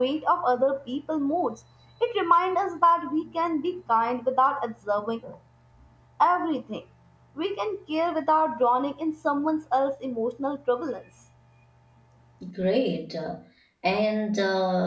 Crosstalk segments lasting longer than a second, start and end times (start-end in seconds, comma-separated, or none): none